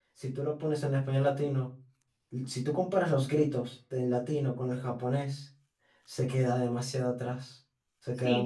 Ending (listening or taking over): taking over